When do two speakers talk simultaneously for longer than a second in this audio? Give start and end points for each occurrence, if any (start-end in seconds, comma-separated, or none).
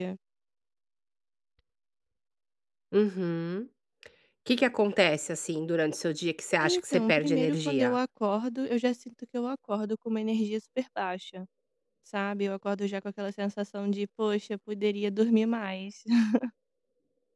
6.6-8.0